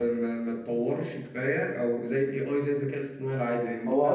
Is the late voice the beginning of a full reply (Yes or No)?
Yes